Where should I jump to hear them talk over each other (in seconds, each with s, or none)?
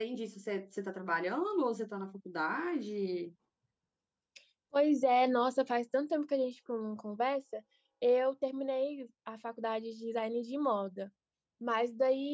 none